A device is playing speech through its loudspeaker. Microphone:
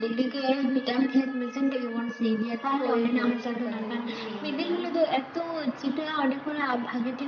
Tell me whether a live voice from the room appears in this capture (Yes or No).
Yes